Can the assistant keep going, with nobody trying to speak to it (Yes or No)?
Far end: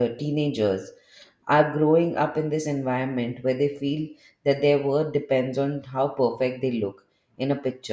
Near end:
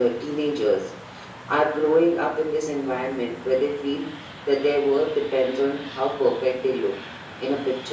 Yes